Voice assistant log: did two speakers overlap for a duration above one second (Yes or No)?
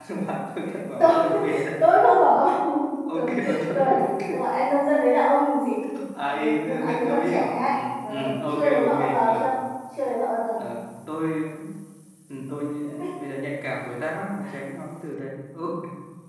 Yes